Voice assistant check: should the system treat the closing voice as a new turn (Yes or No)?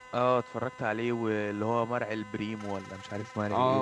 Yes